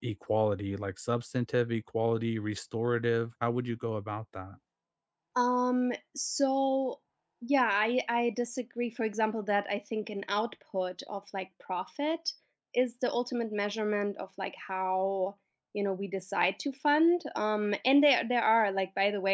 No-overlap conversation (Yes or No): Yes